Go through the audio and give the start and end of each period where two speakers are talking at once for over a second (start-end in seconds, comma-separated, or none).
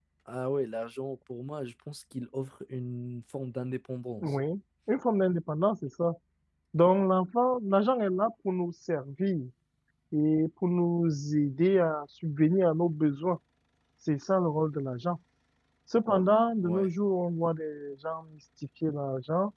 none